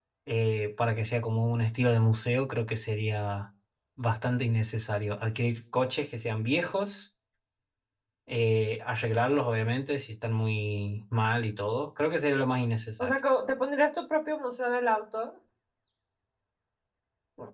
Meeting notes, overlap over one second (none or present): none